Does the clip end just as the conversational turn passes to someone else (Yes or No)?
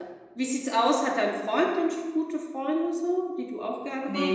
Yes